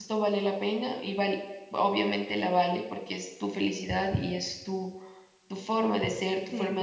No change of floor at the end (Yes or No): Yes